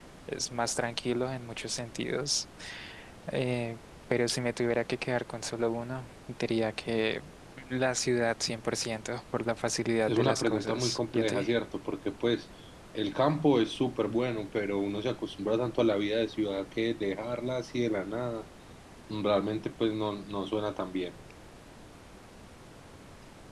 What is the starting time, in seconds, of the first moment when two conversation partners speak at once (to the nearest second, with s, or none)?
10 s